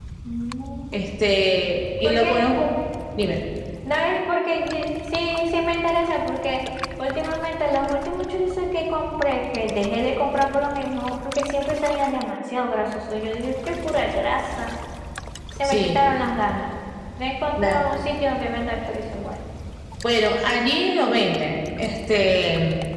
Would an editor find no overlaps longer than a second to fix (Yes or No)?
Yes